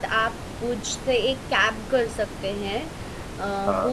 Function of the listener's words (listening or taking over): listening